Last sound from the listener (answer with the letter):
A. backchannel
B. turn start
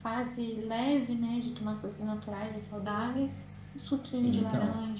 B